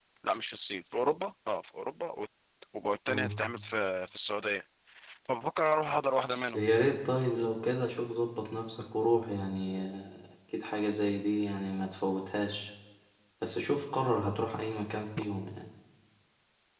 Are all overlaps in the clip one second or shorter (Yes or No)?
Yes